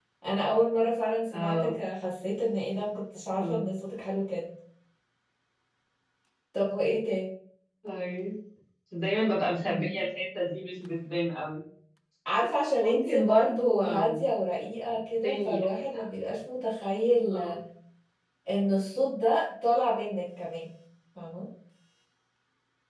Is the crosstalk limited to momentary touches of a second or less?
No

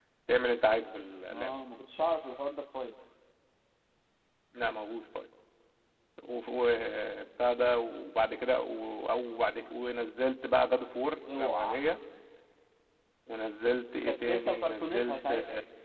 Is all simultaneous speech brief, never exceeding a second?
No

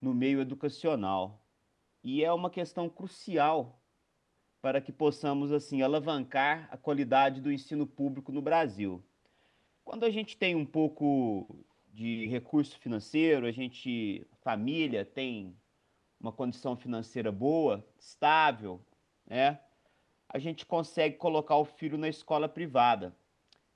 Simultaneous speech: No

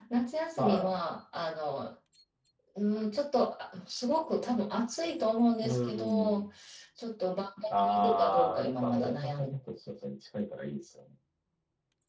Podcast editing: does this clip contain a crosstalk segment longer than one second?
Yes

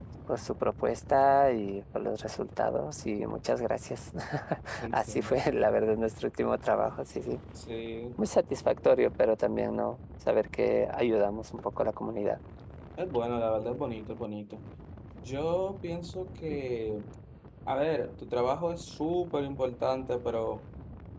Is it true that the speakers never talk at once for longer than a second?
Yes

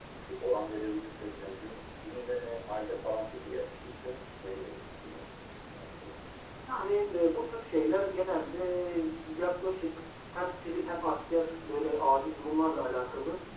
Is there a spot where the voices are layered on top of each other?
No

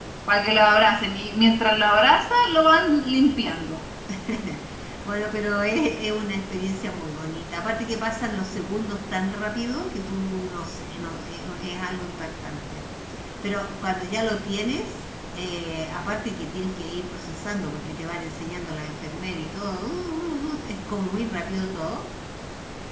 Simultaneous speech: No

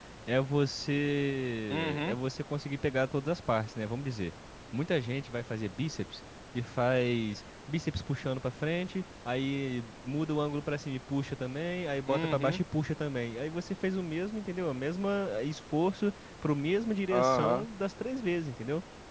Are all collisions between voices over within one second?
Yes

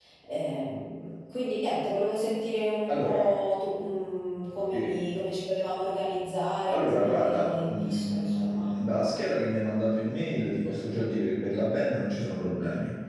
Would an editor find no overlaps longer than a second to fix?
No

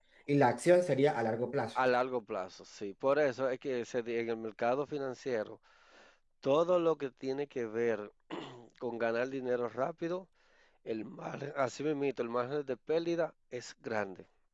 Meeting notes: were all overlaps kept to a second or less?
Yes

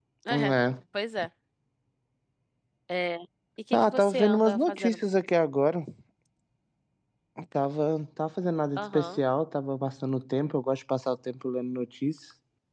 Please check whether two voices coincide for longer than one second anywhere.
Yes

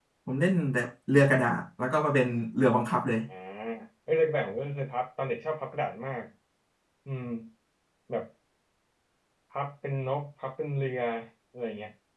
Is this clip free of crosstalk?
Yes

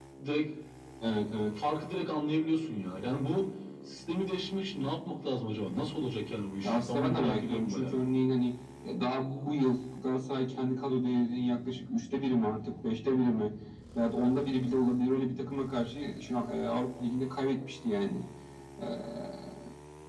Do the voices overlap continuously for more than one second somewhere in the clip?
Yes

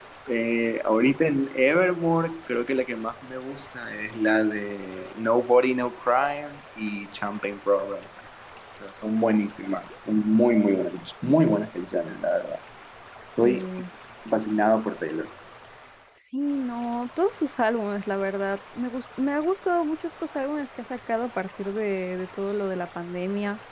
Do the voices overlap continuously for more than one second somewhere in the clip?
No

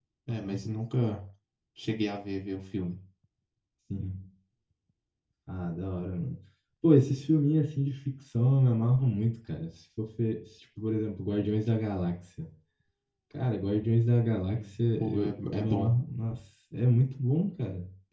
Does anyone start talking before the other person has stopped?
Yes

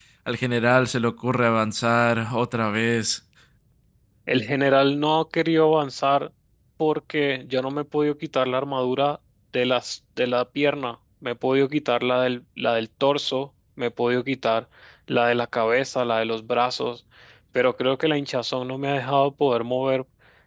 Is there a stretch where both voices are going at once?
No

